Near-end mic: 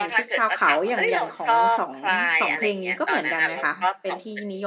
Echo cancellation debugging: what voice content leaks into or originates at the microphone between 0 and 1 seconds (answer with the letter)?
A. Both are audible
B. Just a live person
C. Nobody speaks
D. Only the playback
A